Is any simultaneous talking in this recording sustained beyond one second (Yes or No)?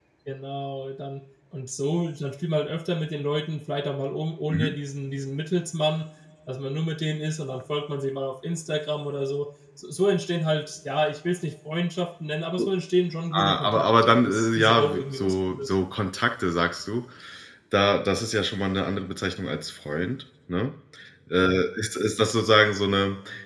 Yes